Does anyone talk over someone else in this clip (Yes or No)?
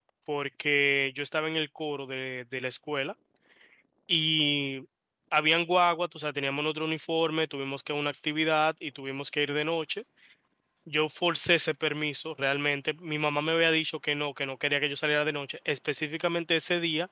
No